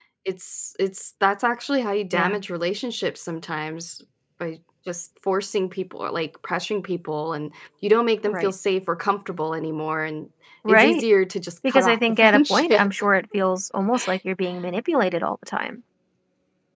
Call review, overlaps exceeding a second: present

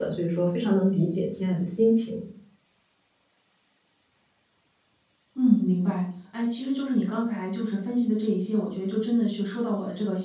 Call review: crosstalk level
none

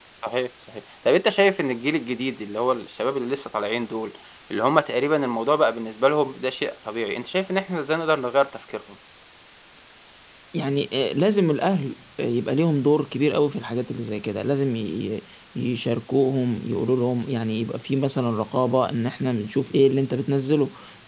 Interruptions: none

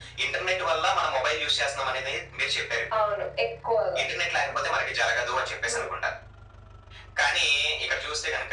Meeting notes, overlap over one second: none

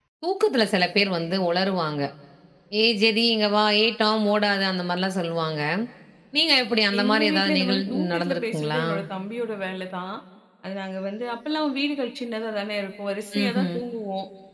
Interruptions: present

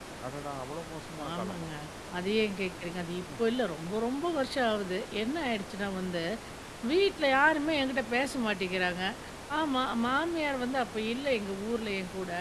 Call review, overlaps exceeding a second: none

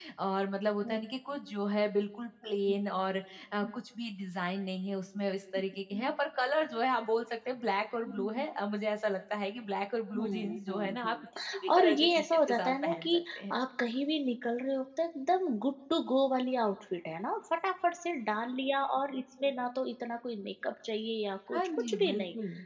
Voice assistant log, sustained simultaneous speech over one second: present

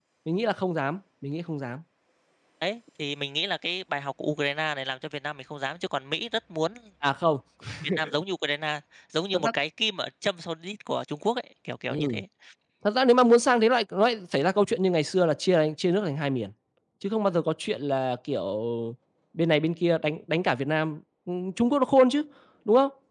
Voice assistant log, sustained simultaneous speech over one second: none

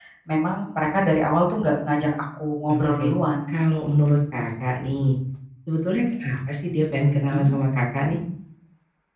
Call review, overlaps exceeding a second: none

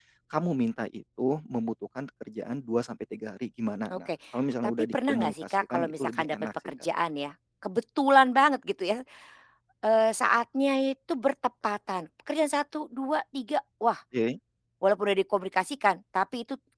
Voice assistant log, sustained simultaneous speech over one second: present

